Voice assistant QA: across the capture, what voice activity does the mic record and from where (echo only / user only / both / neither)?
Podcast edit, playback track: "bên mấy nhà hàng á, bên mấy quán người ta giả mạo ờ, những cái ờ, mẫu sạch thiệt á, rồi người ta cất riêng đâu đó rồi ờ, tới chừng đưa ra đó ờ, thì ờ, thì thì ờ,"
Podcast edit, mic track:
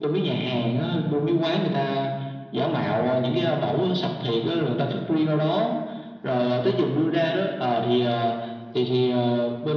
echo only